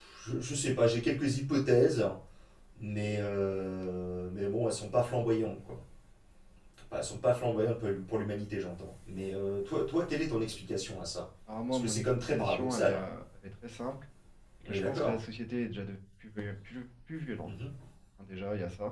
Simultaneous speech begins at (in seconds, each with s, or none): 11.7 s